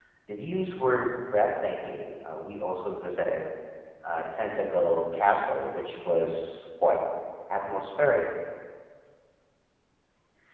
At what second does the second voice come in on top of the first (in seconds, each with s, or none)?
none